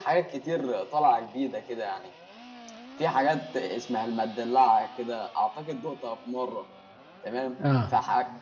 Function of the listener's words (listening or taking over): listening